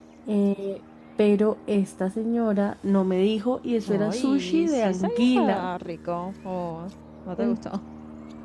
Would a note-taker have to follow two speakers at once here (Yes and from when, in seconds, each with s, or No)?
Yes, from 3.9 s